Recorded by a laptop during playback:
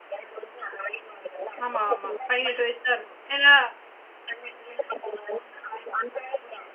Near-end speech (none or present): present